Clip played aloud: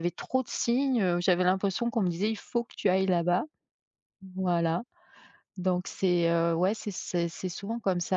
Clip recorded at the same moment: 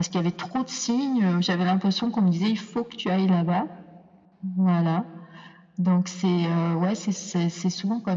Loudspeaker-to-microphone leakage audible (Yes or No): Yes